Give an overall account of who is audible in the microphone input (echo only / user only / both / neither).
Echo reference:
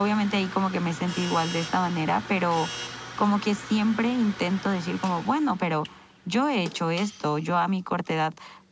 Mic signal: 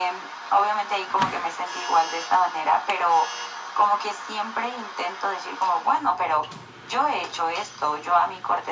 echo only